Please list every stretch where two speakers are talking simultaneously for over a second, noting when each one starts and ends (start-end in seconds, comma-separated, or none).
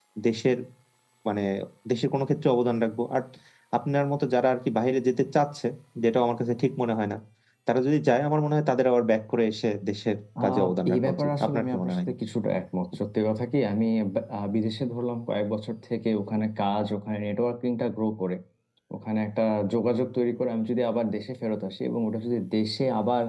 10.4-12.0